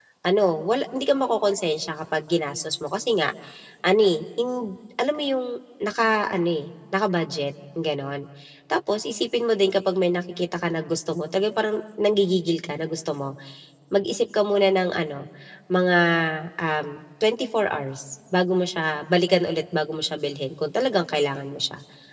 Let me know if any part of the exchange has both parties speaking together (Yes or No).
No